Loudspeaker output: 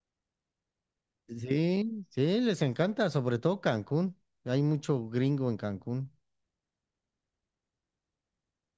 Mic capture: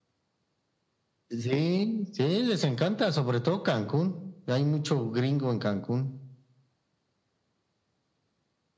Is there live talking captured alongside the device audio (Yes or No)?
No